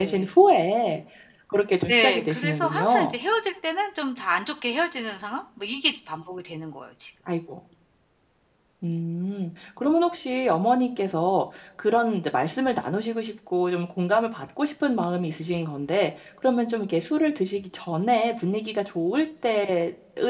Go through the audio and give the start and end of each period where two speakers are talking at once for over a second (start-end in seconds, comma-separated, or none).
1.9-3.1